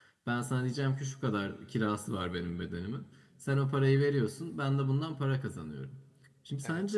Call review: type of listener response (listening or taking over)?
listening